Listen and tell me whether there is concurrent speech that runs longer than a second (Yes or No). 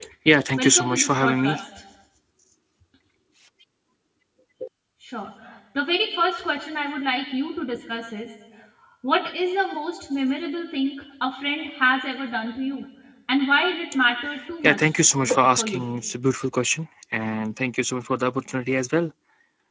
Yes